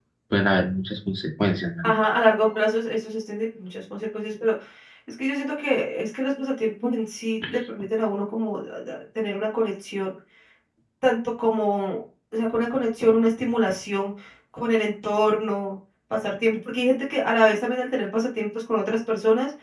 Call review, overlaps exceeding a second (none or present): none